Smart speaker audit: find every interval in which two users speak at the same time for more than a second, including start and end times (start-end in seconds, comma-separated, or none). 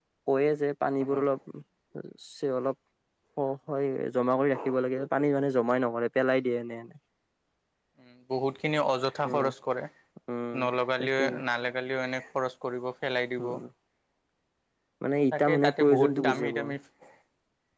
15.3-16.7